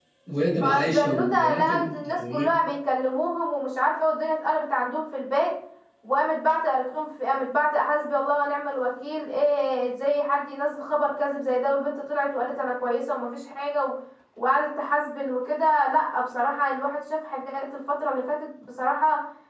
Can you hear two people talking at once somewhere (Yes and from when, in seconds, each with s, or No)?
Yes, from 0.6 s